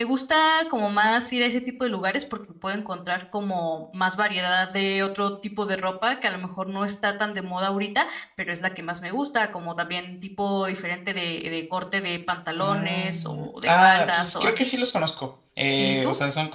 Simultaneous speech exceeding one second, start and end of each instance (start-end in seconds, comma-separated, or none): 12.6-14.7